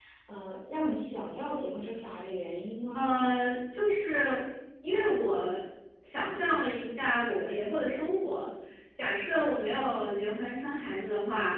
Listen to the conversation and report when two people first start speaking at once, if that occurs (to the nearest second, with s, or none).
none